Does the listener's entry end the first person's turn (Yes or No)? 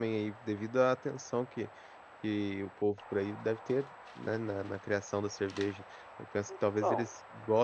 No